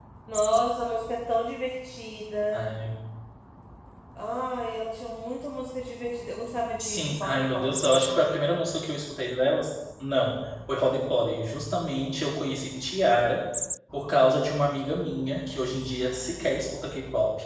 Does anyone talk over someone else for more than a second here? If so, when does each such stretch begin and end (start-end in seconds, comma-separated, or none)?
6.8-8.2